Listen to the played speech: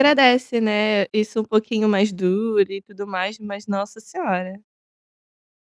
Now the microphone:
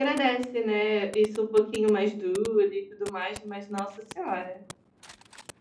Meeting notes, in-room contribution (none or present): none